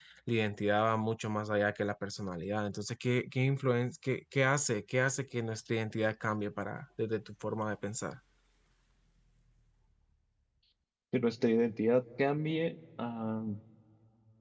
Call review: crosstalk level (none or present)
none